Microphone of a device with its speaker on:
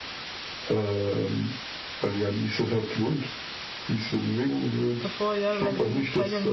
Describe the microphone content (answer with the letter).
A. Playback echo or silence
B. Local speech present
B